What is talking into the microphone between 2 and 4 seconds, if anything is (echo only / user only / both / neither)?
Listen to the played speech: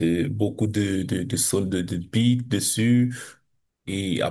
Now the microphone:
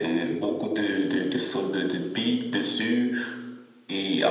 echo only